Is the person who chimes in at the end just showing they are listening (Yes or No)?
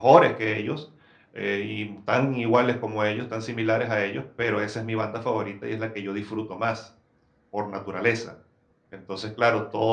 Yes